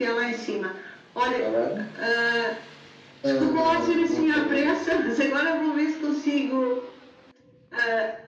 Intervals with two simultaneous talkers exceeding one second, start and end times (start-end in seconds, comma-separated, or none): 3.2-4.8